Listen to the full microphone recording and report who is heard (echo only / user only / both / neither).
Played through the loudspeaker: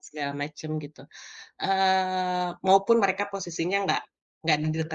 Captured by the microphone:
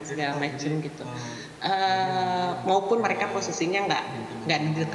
both